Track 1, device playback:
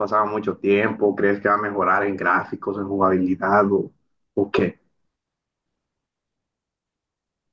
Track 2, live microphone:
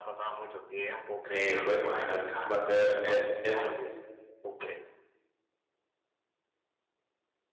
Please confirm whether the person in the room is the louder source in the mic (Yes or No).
Yes